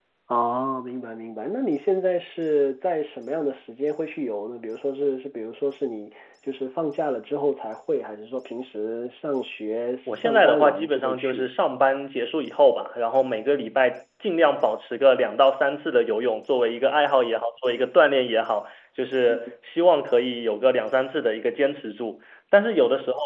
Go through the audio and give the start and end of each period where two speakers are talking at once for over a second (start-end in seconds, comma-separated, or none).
10.1-11.5